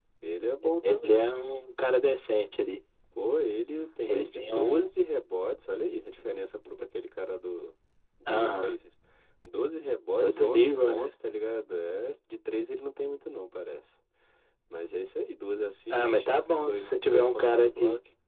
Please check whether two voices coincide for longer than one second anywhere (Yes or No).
Yes